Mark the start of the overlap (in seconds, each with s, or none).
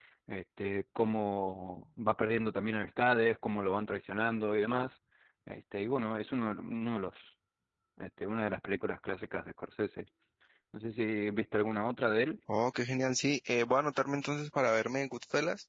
none